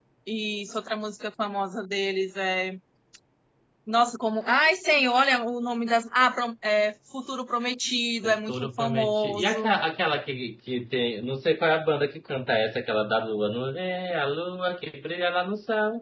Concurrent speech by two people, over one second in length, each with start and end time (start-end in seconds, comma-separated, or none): 8.2-9.8